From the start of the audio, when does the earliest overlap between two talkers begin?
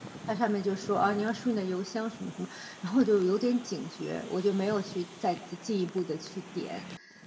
none

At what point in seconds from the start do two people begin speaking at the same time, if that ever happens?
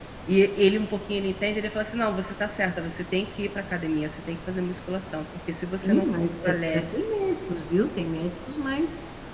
5.7 s

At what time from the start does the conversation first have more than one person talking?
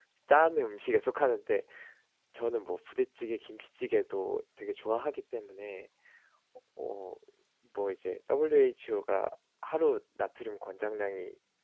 none

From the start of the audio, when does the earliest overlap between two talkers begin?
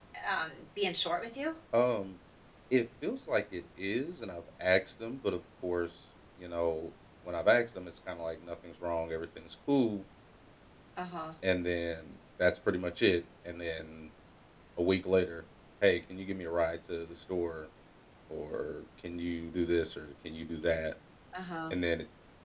none

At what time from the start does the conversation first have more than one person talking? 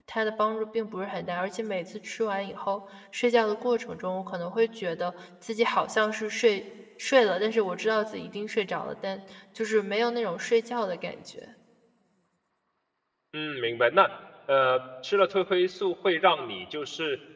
none

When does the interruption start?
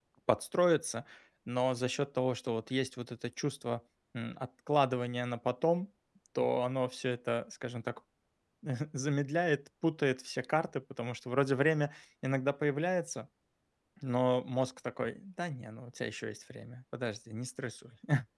none

